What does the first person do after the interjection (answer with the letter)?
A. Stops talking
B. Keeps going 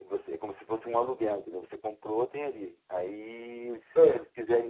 B